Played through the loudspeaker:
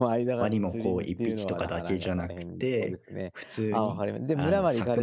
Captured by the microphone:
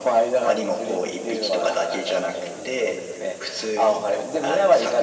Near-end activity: none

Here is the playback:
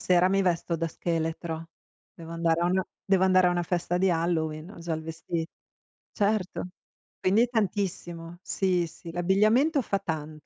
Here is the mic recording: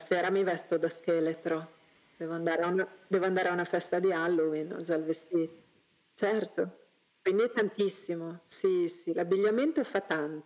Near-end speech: none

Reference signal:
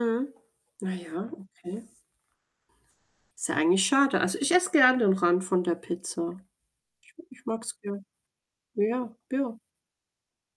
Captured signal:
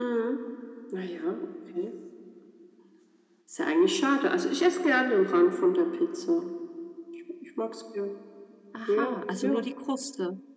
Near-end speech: present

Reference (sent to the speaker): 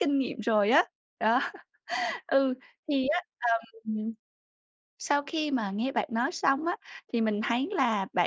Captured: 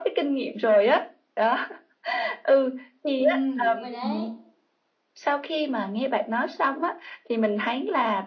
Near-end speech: present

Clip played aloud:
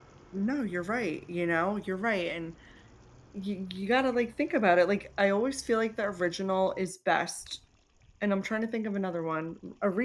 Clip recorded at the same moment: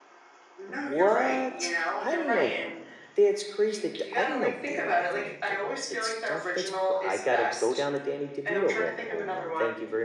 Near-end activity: present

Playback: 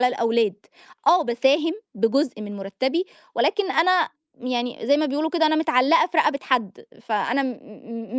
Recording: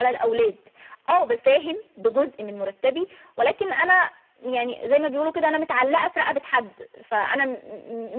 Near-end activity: none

